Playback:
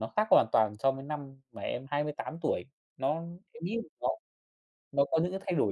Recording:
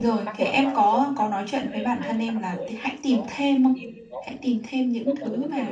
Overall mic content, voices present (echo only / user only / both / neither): both